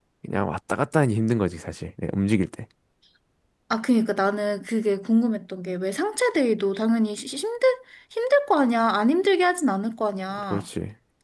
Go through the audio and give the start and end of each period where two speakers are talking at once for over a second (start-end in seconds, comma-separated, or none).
none